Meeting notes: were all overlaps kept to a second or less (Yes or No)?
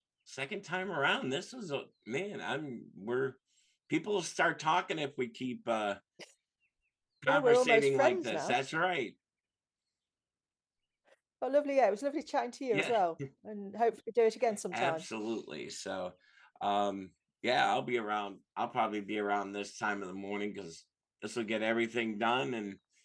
No